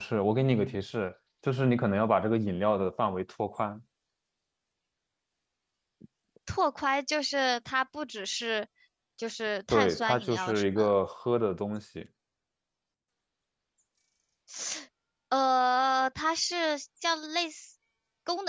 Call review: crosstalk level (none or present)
present